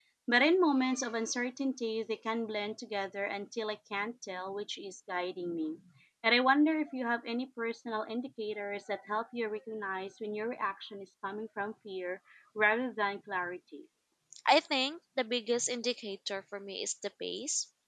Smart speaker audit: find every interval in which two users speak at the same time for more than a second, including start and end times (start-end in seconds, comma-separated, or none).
none